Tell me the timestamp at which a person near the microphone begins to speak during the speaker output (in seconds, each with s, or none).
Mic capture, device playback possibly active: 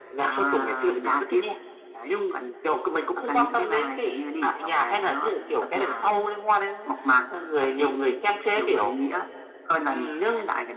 none